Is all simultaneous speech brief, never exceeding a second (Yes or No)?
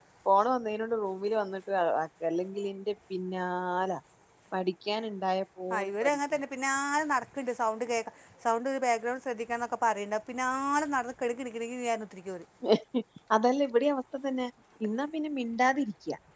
Yes